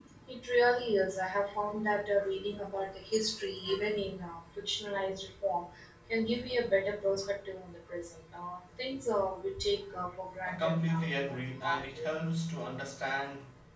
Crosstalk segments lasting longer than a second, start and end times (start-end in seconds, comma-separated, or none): 10.4-12.2